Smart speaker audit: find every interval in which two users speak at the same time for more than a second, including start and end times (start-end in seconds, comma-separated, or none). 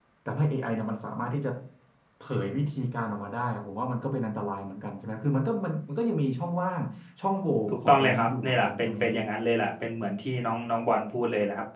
7.7-9.2